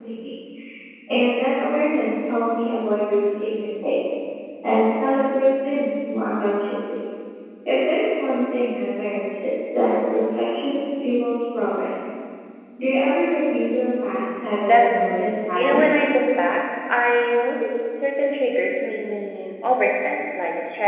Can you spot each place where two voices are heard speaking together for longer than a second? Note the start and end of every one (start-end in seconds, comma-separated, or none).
14.6-16.1